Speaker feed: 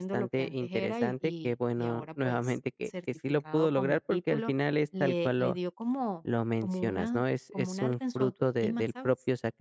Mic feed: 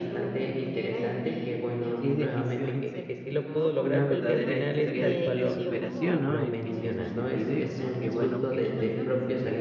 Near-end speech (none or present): present